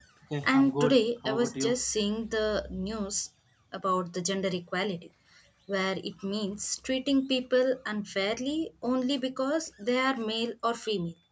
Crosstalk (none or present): present